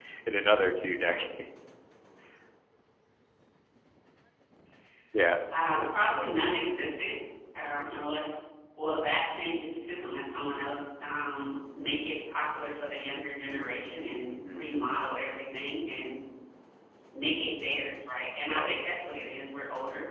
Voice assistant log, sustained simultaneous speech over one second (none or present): none